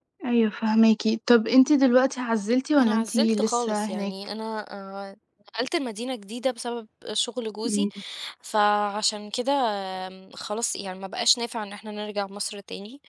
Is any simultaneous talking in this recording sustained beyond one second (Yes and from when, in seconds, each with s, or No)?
Yes, from 2.8 s